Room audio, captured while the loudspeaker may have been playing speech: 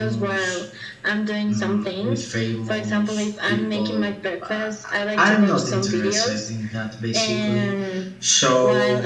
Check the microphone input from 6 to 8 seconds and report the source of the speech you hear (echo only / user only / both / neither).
both